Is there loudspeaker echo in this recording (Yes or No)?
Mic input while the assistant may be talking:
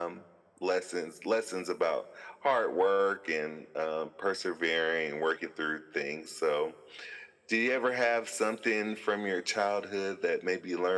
Yes